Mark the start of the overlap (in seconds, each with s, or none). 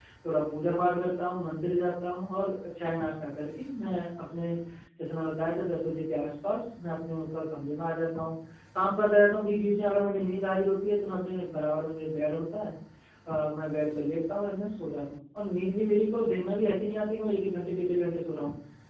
none